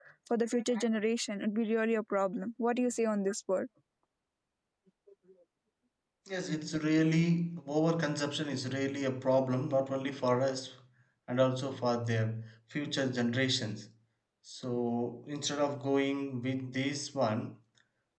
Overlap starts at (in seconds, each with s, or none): none